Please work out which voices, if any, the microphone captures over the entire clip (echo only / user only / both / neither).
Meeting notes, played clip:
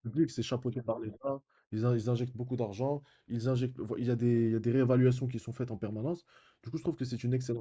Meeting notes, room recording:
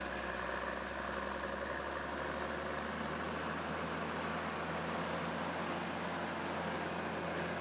neither